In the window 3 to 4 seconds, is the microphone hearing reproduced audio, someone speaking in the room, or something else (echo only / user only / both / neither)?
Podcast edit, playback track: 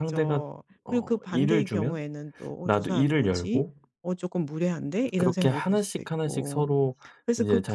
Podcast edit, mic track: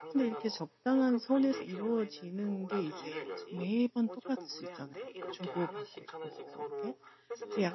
both